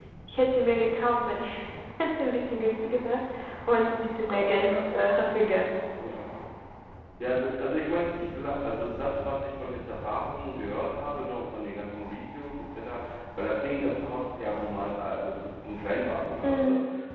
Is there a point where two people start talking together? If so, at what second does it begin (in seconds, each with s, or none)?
4.2 s